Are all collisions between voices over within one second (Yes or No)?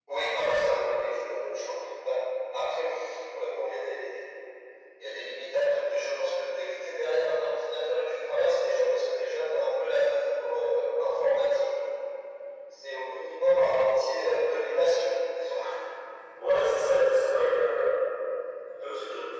Yes